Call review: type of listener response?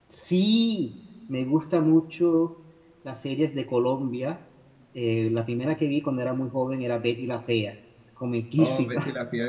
taking over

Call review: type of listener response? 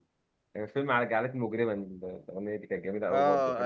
taking over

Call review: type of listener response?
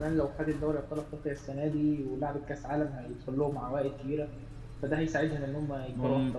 taking over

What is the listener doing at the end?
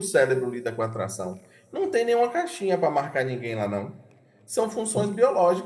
listening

